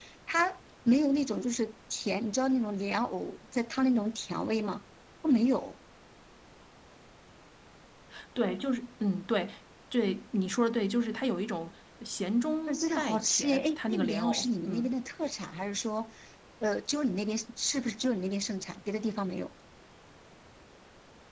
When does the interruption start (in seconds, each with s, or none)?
12.7 s